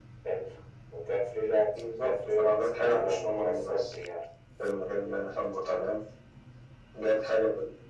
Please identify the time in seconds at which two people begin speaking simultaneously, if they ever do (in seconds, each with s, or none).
2.0 s